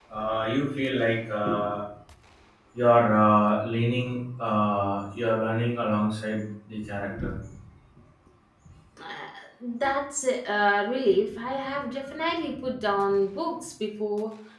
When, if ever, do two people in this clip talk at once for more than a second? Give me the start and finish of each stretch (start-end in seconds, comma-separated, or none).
none